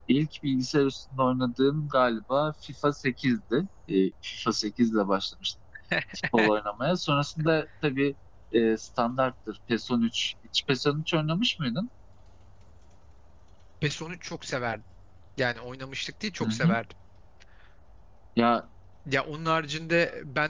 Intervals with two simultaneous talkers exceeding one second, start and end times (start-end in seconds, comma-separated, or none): none